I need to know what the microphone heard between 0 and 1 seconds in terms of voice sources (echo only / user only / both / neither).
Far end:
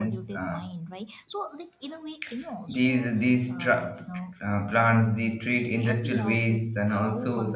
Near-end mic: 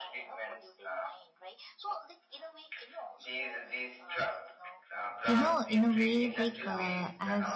echo only